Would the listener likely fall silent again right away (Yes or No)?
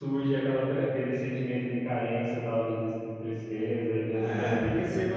No